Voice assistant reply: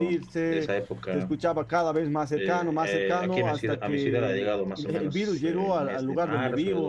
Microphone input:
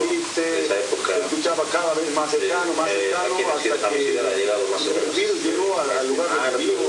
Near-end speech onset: none

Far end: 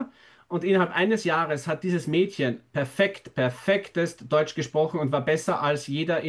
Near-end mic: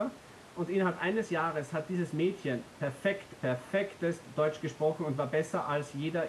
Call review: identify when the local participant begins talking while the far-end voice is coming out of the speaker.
none

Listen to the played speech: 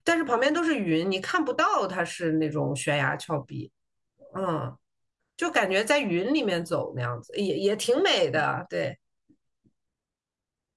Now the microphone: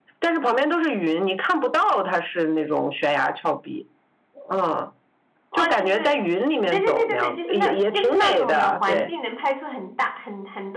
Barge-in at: 6 s

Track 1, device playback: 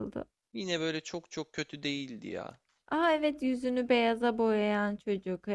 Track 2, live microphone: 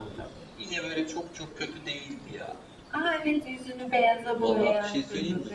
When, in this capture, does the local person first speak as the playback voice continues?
4 s

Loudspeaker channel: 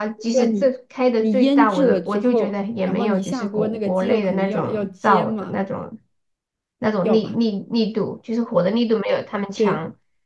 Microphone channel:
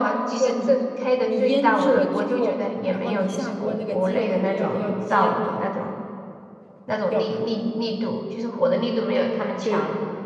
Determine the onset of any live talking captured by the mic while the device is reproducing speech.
none

